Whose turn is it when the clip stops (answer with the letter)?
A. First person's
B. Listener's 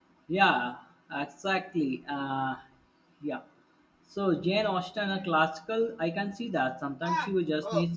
A